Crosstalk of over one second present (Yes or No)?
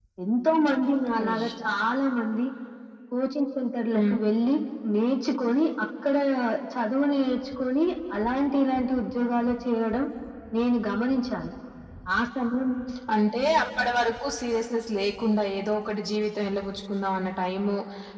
No